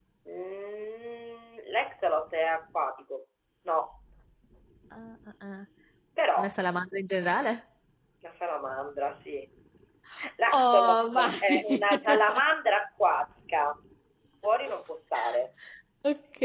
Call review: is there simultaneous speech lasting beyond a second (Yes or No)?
Yes